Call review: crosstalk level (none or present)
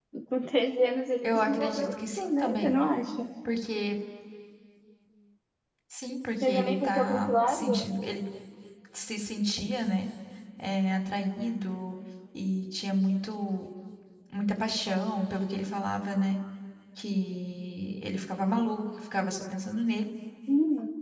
present